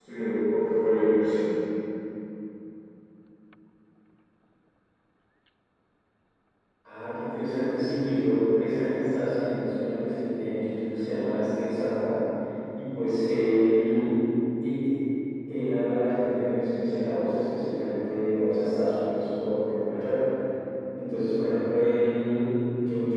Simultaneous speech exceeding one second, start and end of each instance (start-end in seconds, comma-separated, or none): none